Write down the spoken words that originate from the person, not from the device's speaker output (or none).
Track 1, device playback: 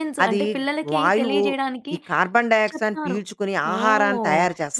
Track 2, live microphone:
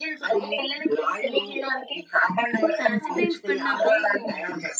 ఇప్పుడు యాసిడ్ రైన్స్ పడినాక